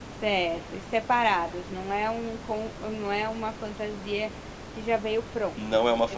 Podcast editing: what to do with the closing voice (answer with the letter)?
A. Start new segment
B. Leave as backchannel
A